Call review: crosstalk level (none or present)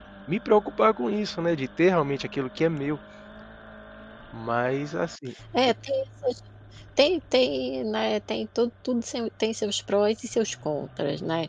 none